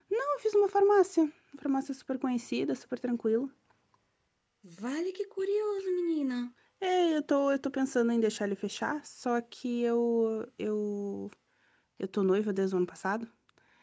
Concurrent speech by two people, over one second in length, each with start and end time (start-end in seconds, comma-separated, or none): none